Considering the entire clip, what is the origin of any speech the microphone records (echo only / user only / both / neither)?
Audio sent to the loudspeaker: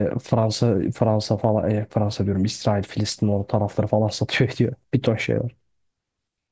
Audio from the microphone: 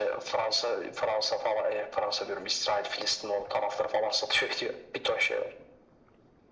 echo only